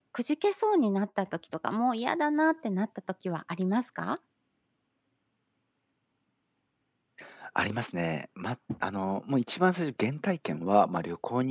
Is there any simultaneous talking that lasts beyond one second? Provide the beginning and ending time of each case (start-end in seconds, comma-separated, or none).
none